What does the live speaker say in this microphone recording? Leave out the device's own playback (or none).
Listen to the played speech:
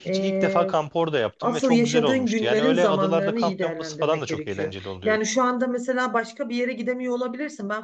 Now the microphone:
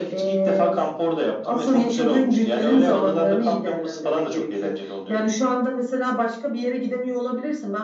none